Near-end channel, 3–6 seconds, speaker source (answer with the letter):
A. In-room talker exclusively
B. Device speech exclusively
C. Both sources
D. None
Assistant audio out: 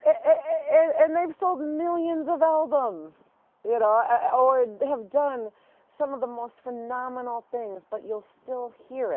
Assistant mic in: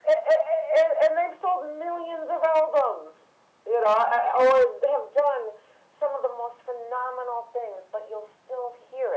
B